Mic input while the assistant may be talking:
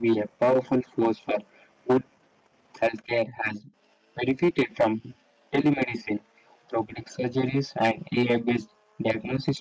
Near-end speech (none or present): none